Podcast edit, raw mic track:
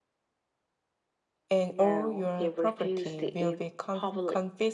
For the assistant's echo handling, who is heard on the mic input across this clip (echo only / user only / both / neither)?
both